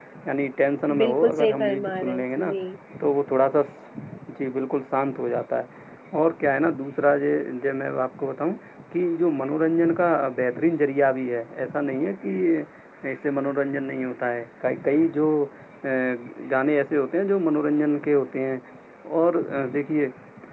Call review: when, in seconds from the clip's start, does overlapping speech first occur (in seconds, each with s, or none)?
1.0 s